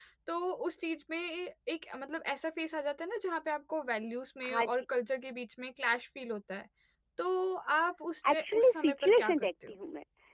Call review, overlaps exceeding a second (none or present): present